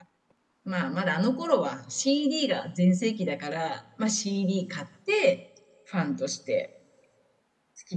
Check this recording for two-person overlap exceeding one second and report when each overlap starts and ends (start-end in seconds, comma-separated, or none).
none